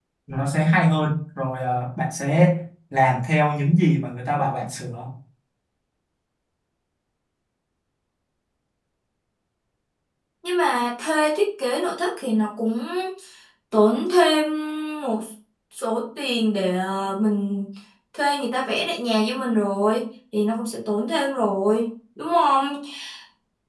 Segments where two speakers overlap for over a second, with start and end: none

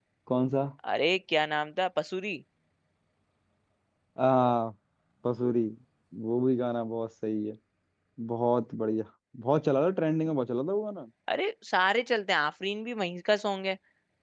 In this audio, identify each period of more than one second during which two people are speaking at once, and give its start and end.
none

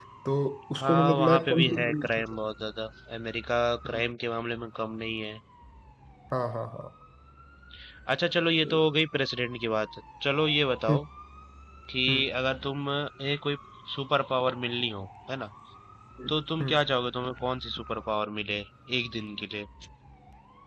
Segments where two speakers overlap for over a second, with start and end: 0.8-2.1

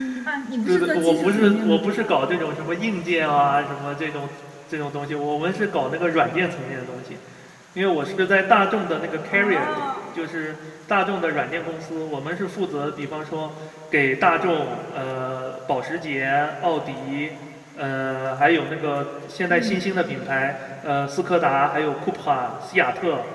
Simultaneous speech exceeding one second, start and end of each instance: 0.6-2.0

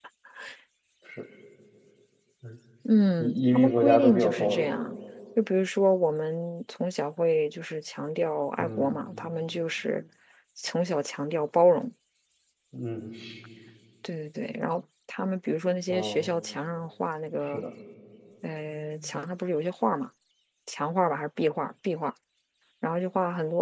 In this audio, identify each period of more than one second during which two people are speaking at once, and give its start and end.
3.2-4.7

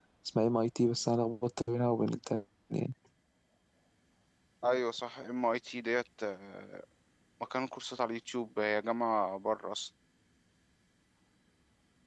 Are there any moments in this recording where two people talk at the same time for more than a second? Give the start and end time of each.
none

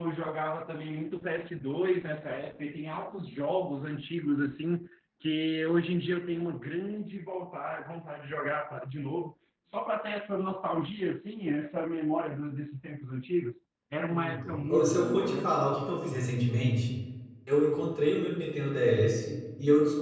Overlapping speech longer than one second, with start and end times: 14.1-15.5

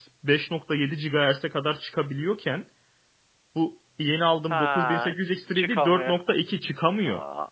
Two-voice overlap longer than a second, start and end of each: 4.5-6.2

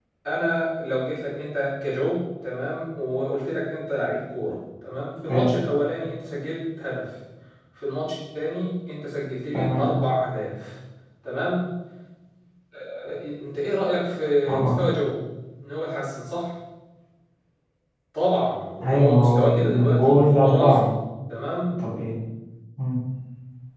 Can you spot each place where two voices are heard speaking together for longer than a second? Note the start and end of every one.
18.8-20.8

